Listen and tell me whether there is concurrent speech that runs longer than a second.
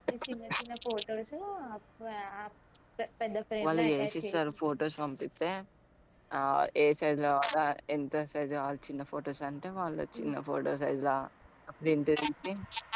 Yes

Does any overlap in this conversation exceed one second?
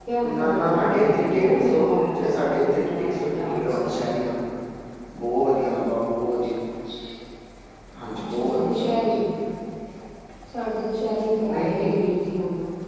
Yes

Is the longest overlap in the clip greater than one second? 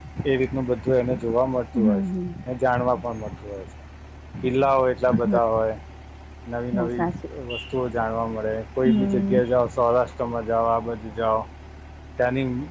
No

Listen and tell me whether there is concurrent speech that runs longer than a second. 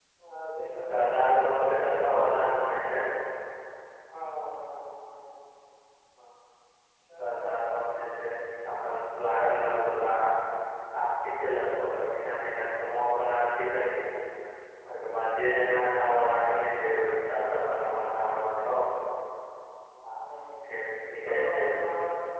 Yes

